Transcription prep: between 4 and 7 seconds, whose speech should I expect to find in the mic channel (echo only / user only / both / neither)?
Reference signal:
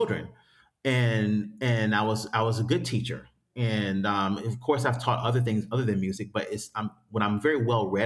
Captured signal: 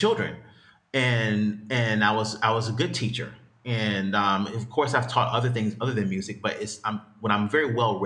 echo only